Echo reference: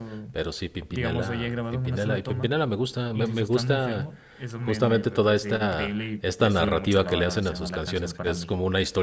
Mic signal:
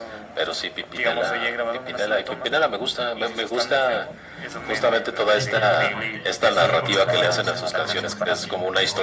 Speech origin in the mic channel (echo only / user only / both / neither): both